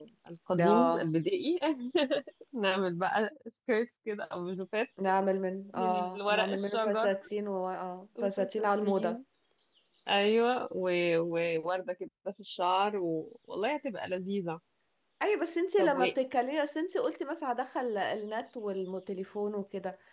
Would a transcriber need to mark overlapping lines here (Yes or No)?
Yes